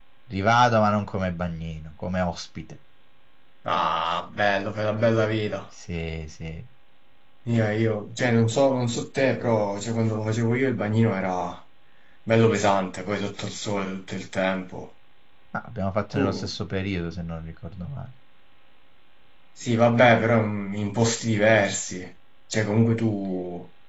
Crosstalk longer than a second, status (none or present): none